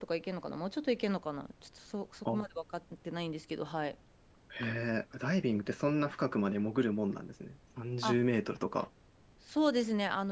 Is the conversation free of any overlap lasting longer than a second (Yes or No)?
Yes